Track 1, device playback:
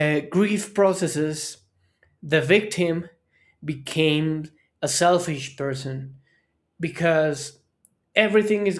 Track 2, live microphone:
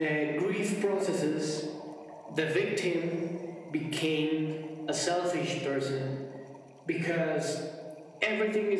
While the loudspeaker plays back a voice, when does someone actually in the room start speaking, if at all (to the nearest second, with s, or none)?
none